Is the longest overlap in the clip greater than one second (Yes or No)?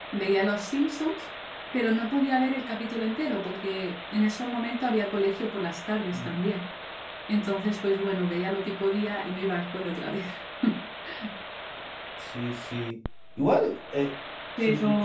No